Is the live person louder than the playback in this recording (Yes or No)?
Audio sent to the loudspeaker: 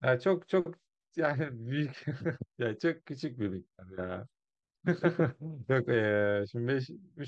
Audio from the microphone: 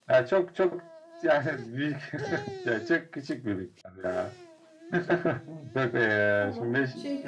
No